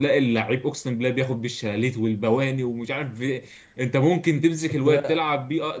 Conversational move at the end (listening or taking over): listening